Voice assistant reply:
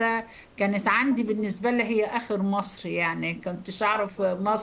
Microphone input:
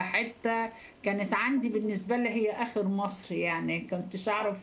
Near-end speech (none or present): none